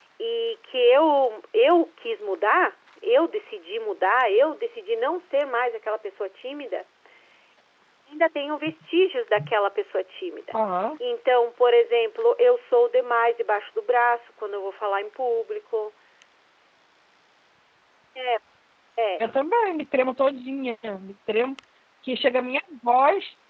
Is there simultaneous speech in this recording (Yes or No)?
No